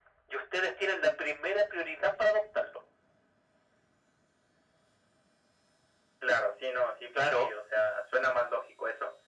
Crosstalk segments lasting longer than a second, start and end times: none

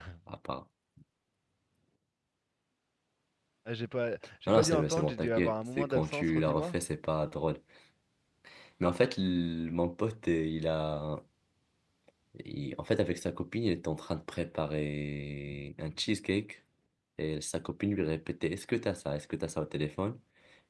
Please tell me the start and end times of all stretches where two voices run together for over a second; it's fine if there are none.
4.5-6.8

